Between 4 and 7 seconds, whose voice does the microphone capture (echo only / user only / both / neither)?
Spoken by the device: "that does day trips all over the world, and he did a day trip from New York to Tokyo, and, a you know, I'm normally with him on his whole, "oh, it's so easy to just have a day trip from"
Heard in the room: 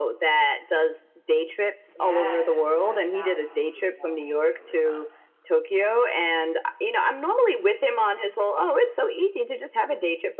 both